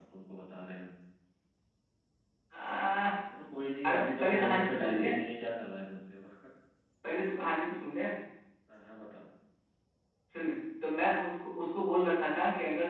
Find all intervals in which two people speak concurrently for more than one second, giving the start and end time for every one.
3.8-5.1

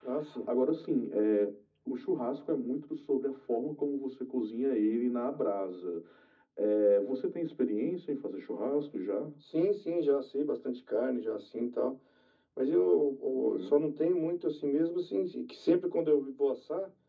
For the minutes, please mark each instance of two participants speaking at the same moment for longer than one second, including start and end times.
none

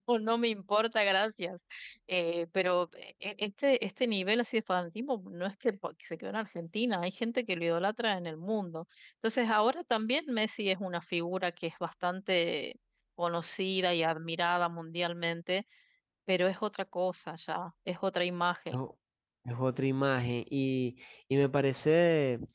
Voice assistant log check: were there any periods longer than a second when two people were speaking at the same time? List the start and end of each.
none

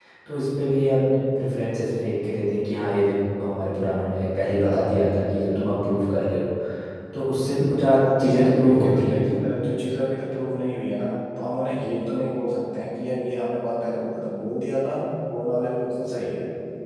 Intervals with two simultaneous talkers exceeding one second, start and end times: 8.2-9.4

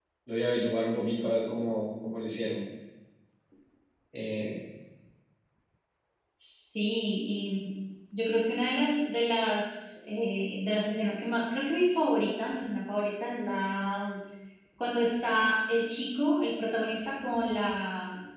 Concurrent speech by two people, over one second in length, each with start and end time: none

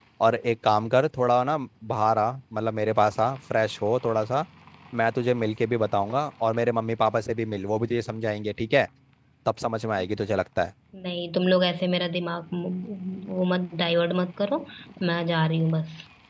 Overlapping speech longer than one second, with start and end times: none

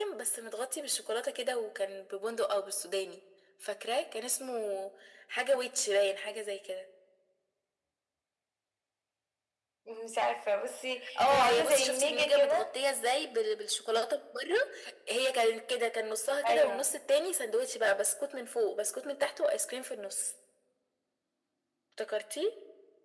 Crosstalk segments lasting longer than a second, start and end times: 11.3-12.7

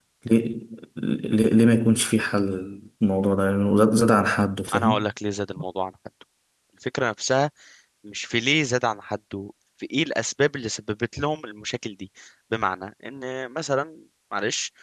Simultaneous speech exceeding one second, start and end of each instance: none

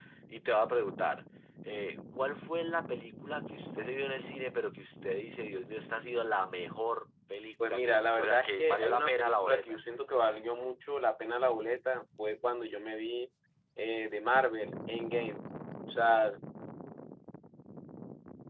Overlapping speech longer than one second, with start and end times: 7.6-9.8

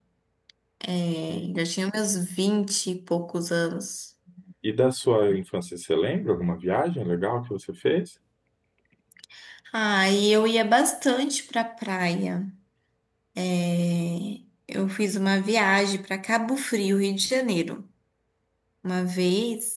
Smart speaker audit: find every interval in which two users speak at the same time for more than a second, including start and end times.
none

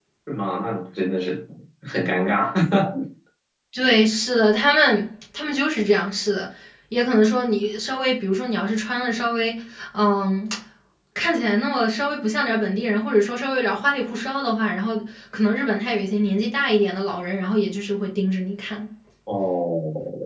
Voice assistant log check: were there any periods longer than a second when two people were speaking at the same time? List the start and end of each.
none

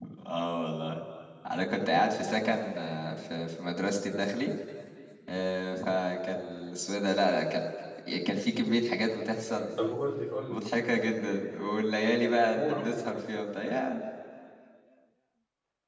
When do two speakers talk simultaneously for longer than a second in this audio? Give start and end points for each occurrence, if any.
none

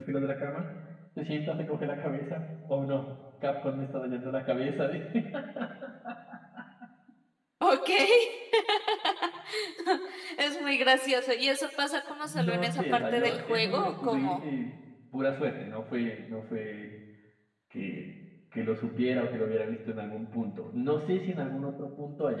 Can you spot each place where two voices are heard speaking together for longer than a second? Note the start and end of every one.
12.2-14.4

